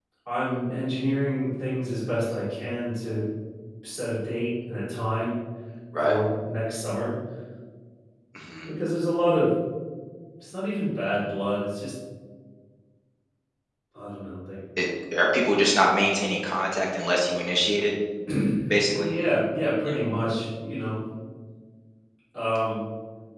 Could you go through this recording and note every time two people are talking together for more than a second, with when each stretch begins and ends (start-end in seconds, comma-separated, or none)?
none